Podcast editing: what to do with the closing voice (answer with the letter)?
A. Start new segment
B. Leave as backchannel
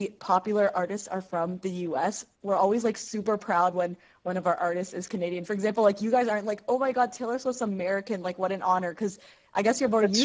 B